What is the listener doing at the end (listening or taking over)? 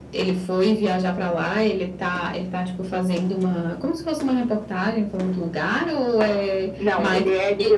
taking over